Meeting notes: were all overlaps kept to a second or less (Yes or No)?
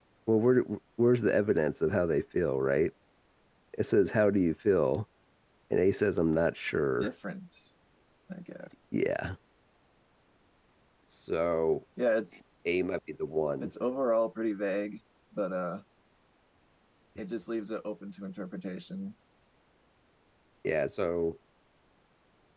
Yes